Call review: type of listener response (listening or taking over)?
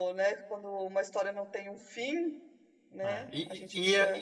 taking over